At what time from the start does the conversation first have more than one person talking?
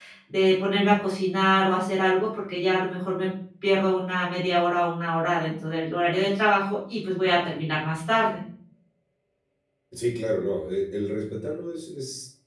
none

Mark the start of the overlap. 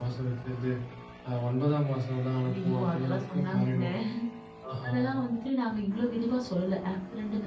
2.5 s

